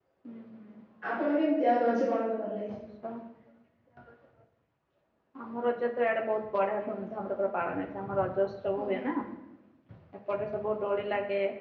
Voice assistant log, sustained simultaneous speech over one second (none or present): none